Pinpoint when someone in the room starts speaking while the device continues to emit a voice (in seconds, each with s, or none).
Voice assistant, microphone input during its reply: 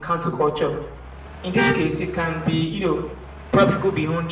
none